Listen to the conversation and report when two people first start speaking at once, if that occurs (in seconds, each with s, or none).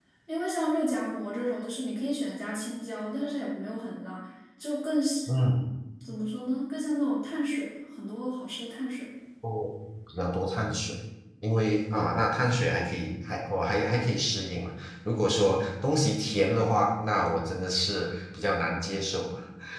none